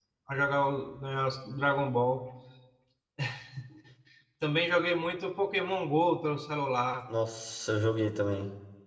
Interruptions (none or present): none